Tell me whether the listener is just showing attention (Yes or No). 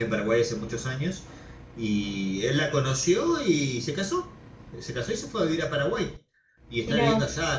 Yes